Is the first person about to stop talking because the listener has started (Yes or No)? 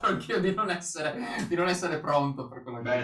Yes